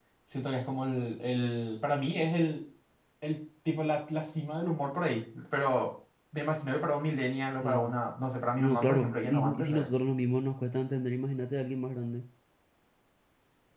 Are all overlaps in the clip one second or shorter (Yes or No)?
No